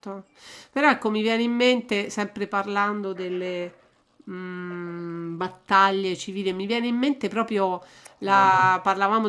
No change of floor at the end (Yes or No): Yes